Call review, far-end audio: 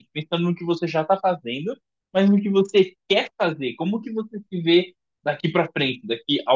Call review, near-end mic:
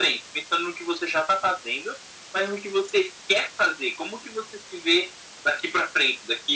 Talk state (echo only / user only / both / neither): echo only